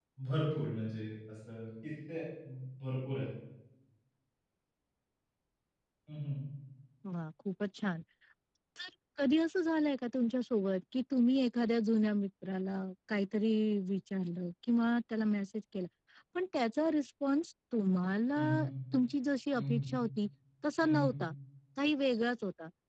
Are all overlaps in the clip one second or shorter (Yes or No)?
Yes